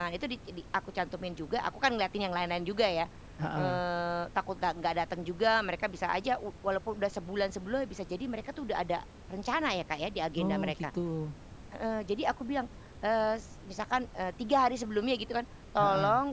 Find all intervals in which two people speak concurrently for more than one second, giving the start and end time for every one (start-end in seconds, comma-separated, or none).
none